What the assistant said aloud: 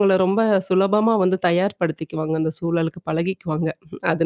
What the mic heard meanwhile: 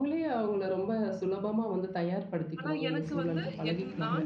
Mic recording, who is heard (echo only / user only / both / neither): both